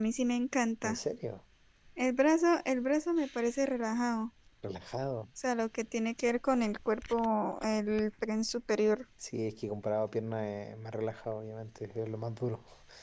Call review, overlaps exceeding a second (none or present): none